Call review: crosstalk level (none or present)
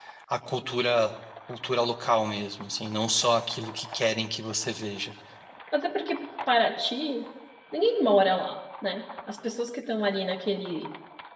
none